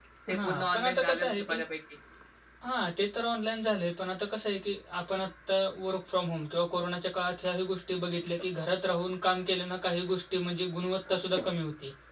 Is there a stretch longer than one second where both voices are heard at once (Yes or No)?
Yes